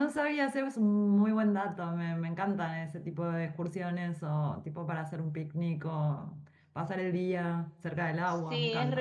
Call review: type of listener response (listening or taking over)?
taking over